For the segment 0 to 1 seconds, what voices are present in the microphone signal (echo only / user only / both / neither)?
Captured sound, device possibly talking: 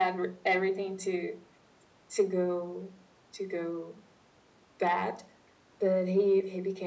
echo only